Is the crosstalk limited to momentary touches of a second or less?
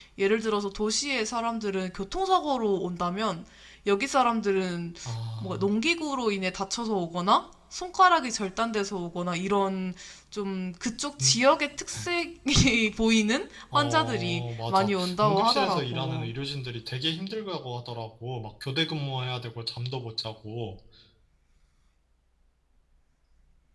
No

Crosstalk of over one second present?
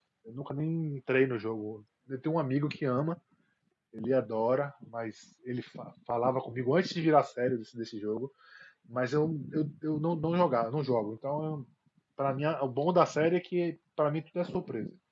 No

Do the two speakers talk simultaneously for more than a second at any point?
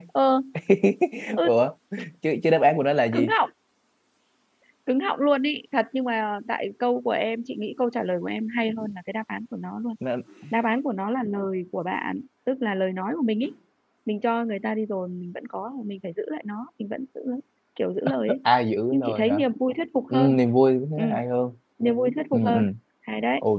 No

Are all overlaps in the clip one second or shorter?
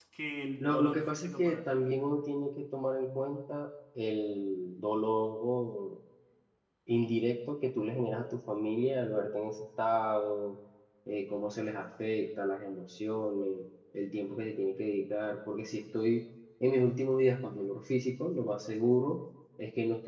No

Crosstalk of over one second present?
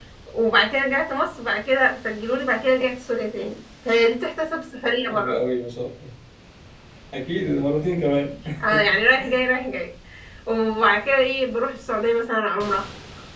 No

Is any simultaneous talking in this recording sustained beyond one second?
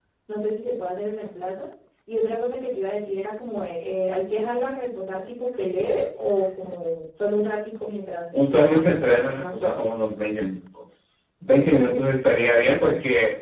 Yes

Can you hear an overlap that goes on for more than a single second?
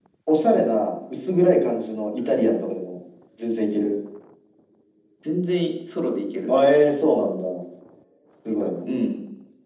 No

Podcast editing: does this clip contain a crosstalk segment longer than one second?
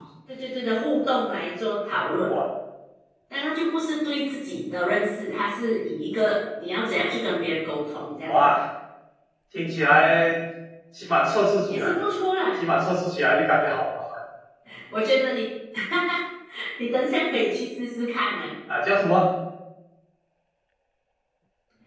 No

